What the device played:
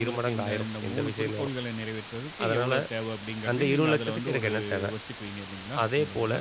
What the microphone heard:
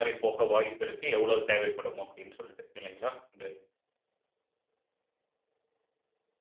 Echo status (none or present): none